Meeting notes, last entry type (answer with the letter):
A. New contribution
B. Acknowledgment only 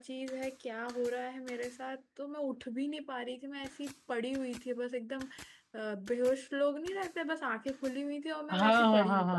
A